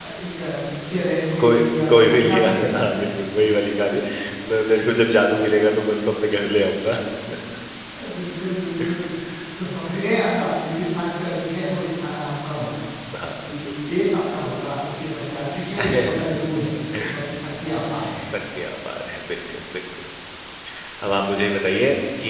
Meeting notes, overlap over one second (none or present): present